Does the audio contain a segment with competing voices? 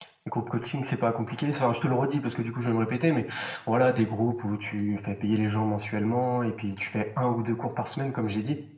No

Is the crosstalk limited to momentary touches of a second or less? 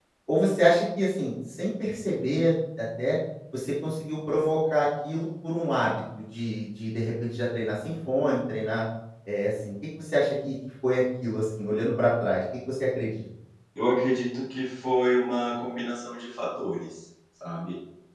Yes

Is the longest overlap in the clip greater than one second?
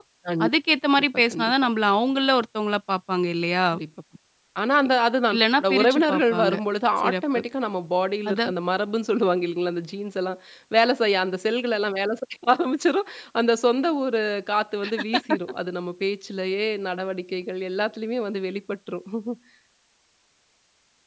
Yes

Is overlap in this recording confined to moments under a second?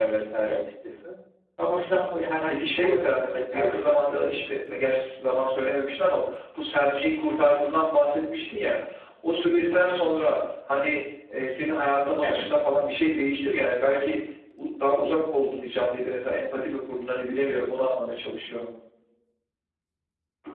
No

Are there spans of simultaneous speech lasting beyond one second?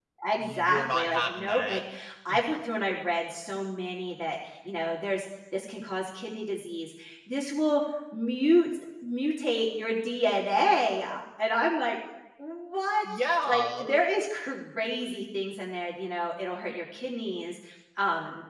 Yes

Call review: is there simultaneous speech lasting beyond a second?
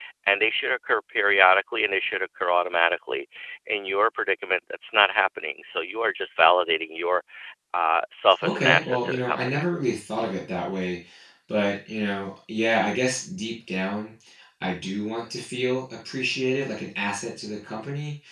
Yes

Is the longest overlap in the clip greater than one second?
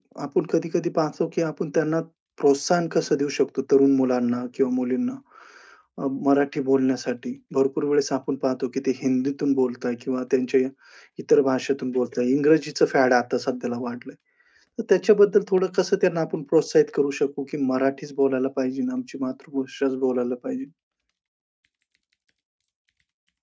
No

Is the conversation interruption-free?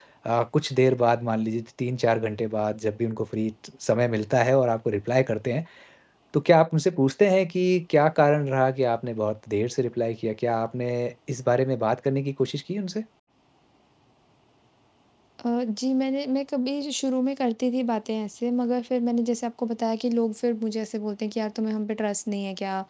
Yes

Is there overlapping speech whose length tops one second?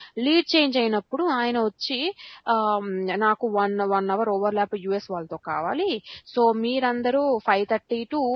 No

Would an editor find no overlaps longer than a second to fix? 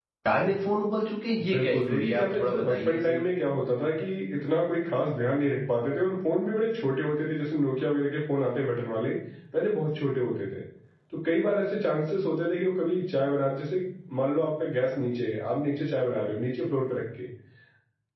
No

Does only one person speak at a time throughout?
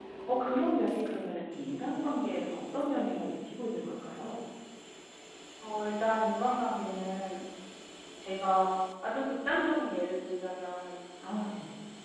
Yes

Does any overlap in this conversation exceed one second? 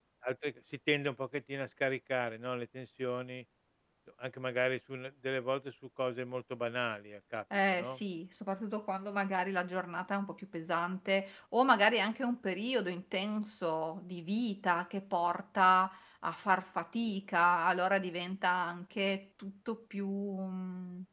No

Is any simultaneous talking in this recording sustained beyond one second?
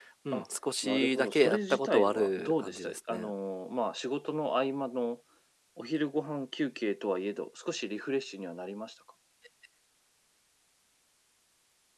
Yes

